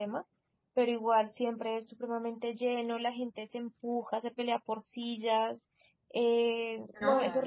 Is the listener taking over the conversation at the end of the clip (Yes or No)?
No